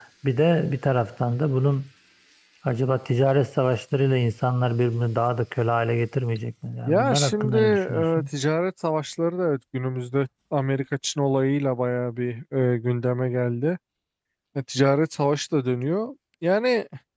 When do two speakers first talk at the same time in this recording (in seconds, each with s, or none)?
6.9 s